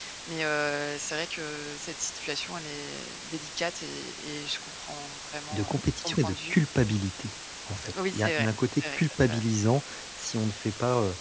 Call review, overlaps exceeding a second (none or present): present